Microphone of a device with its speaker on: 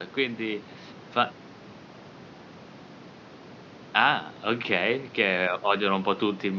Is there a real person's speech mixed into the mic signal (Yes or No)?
Yes